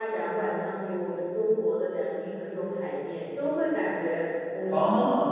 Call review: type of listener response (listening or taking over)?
listening